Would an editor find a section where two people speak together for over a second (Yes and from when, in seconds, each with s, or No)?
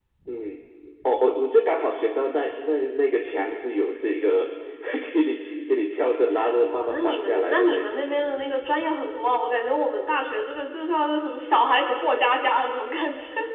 Yes, from 6.7 s